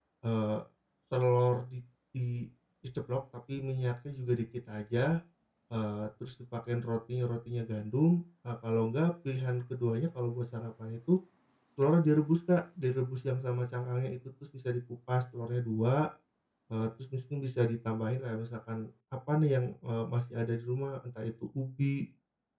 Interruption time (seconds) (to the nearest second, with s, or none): none